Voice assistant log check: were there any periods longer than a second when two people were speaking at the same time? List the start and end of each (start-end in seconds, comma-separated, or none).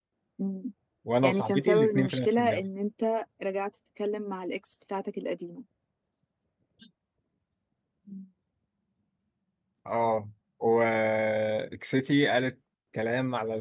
1.2-2.7